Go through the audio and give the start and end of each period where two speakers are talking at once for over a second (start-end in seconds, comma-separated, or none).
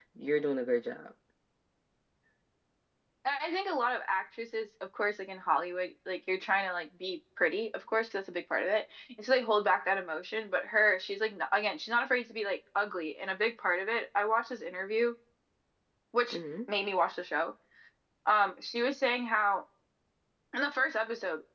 none